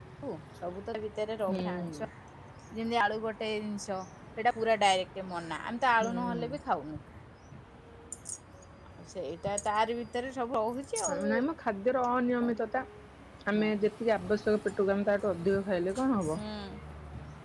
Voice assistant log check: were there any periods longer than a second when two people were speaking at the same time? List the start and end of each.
none

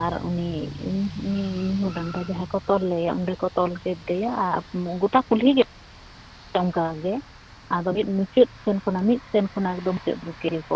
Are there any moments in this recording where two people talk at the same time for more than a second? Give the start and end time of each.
none

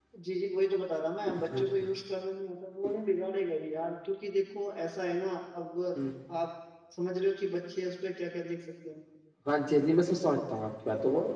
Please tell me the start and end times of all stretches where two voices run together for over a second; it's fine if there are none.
none

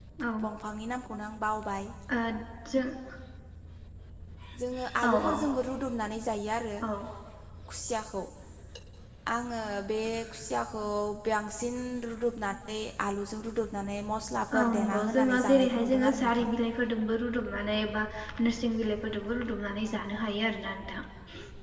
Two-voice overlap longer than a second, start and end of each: 14.6-16.5

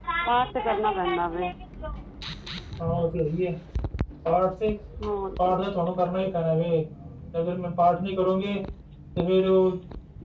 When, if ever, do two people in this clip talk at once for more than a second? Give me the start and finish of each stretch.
none

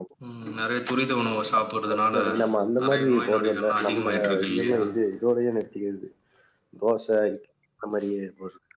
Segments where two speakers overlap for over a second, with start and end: 2.8-4.8

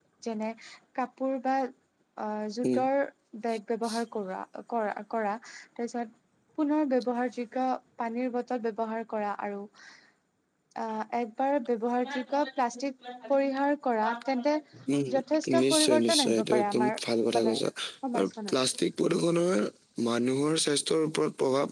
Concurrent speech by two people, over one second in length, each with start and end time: 15.6-17.0

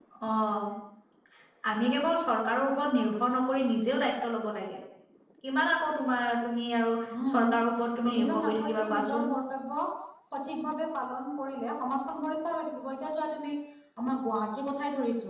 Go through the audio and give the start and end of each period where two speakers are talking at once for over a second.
8.1-9.3

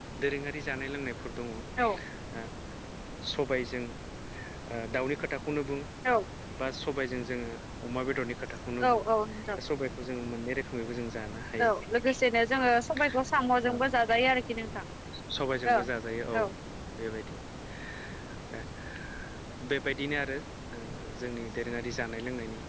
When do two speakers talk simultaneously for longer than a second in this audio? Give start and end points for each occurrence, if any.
none

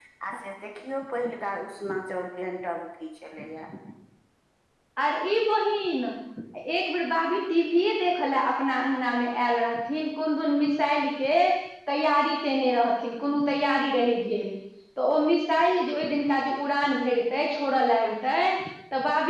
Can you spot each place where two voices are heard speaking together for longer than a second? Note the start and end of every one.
none

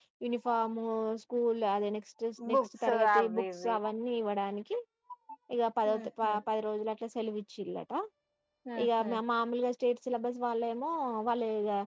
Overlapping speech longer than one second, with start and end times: 2.5-3.7

